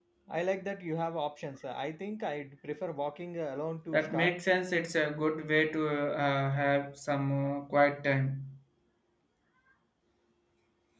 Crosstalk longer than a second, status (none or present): none